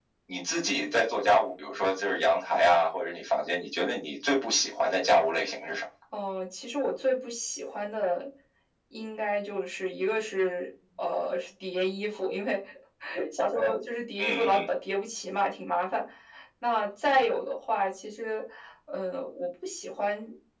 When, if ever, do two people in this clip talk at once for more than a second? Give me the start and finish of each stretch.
none

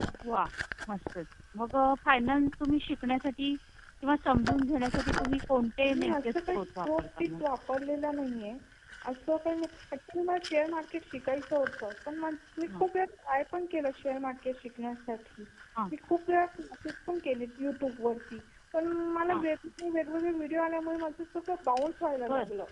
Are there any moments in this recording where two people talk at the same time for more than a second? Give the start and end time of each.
5.8-7.4

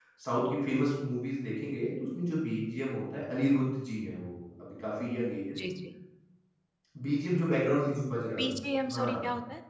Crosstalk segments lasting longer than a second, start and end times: none

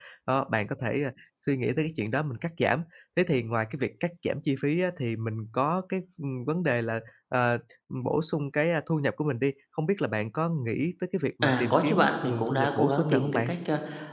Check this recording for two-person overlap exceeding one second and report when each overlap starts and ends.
11.4-13.5

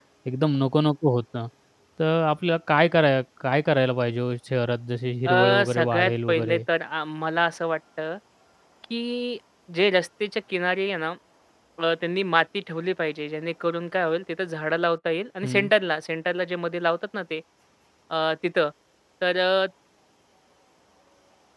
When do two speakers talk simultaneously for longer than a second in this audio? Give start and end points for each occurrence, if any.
5.3-6.6

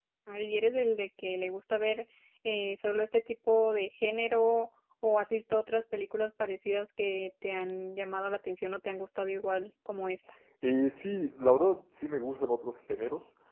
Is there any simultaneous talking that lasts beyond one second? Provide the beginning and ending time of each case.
none

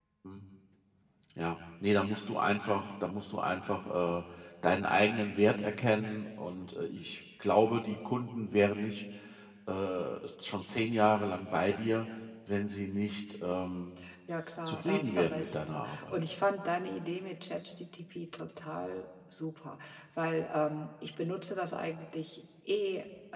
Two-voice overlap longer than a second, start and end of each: 14.7-16.3

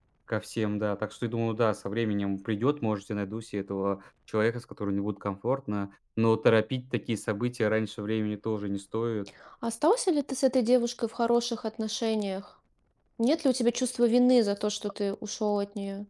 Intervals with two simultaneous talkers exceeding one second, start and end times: none

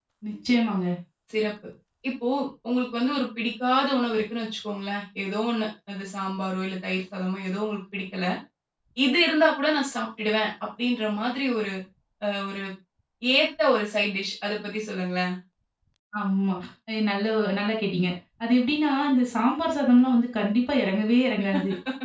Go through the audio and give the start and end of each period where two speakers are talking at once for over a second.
none

